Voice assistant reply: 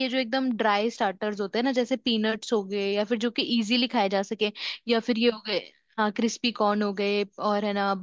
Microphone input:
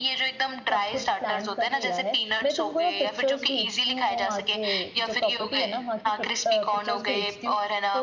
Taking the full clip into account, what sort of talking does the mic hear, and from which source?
both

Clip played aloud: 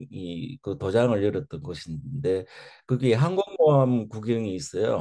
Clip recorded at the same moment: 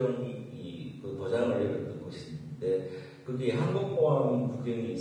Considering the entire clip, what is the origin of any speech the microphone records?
echo only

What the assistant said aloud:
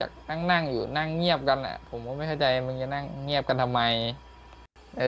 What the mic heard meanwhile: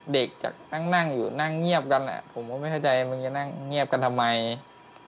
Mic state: echo only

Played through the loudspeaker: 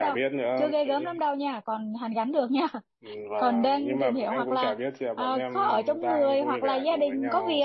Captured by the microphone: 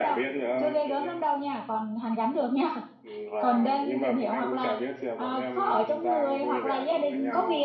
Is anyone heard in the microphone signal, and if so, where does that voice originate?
echo only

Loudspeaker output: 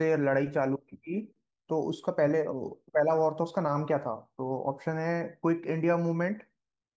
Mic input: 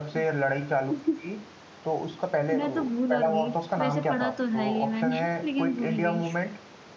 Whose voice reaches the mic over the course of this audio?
both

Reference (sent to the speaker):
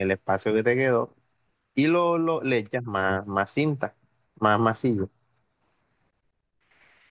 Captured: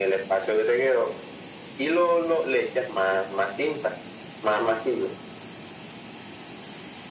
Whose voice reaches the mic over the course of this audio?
echo only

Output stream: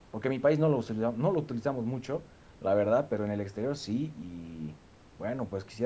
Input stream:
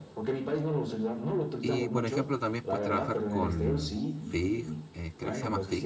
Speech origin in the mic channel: both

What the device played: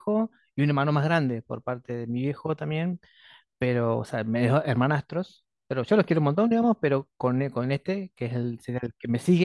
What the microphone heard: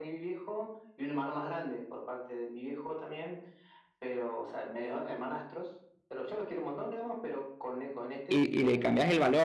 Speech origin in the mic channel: both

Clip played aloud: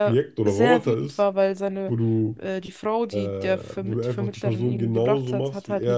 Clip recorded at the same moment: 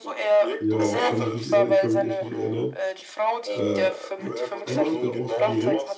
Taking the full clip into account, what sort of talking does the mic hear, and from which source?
both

